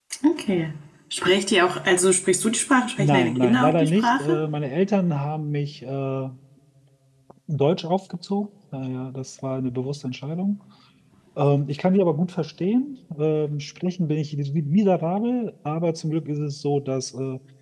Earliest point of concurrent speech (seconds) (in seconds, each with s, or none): 3.0 s